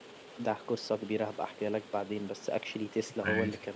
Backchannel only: Yes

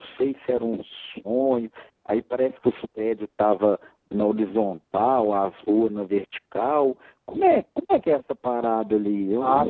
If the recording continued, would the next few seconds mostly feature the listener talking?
Yes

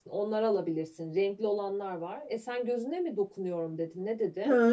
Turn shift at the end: Yes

